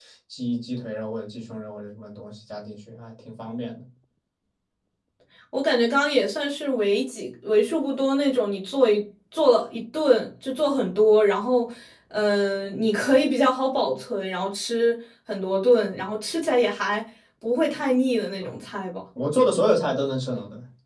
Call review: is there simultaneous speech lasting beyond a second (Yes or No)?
No